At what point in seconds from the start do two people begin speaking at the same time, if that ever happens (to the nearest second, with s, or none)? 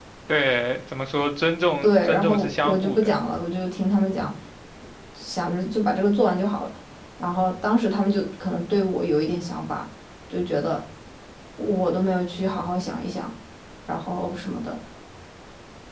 2 s